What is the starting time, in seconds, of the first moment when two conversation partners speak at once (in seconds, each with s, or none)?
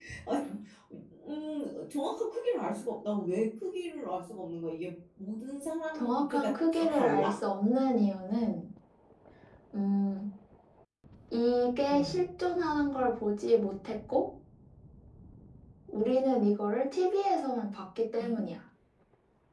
5.9 s